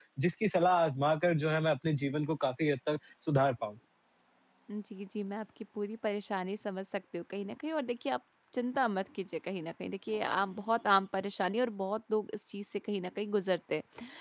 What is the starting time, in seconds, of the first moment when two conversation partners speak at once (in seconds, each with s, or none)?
none